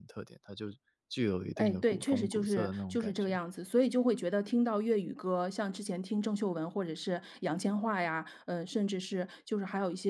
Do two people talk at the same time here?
Yes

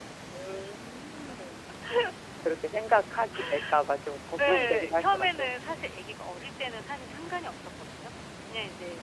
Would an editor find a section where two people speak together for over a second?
Yes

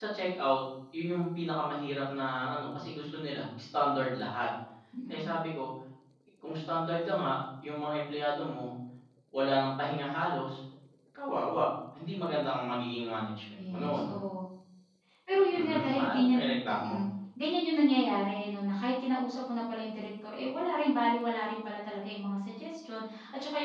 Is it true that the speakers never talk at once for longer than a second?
No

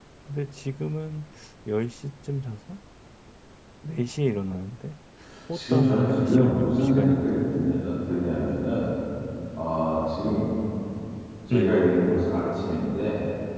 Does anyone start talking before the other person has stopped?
Yes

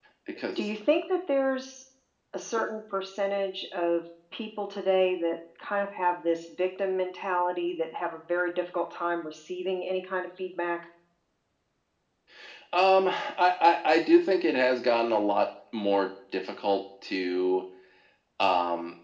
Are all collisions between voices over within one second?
Yes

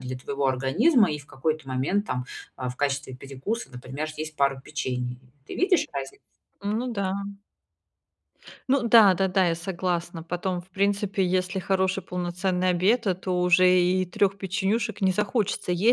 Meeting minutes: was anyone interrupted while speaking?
No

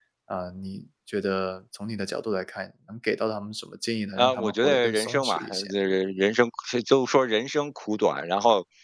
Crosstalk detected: Yes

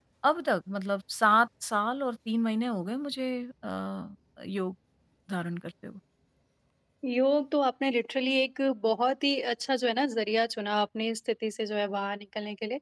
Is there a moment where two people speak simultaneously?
No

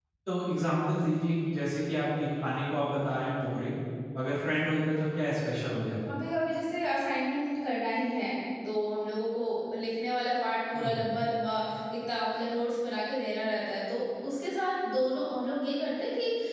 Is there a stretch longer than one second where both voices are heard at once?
No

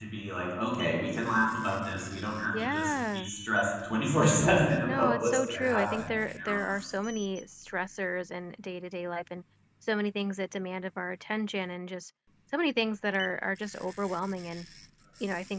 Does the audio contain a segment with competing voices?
Yes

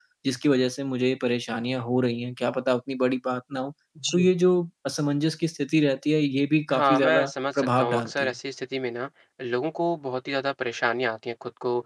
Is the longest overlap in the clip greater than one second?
Yes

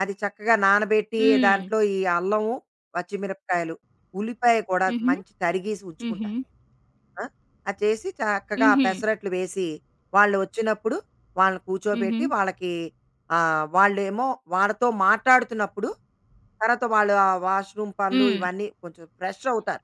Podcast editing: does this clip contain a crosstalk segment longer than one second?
No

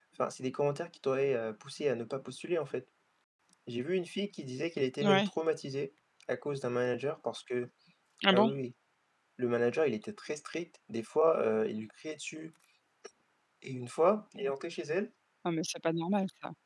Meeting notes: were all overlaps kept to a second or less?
Yes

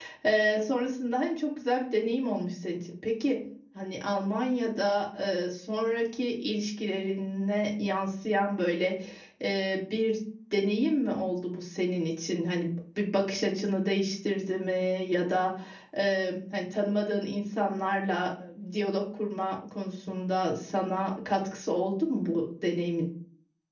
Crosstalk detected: No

